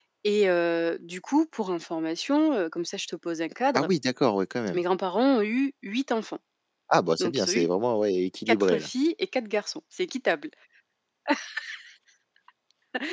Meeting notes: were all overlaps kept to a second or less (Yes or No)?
Yes